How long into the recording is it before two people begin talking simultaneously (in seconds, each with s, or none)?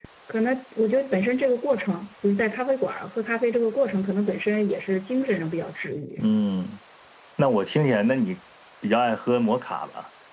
none